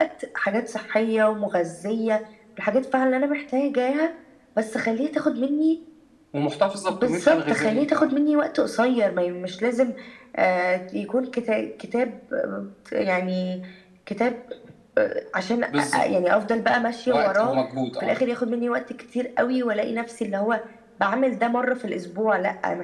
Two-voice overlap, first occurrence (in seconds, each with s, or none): 6.9 s